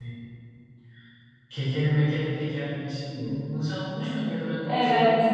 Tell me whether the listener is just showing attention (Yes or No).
No